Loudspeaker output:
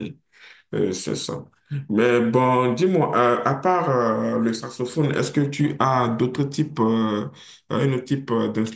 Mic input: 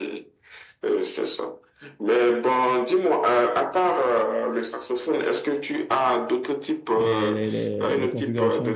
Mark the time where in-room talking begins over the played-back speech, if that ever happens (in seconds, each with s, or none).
6.9 s